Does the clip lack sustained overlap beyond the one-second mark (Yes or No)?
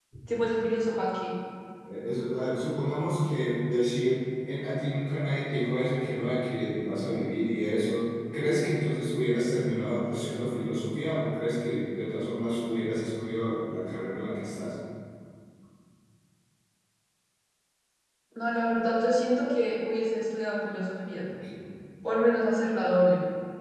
Yes